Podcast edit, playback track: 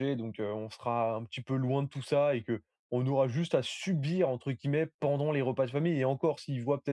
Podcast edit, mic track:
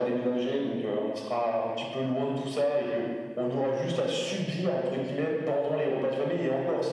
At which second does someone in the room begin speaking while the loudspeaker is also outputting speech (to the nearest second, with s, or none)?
none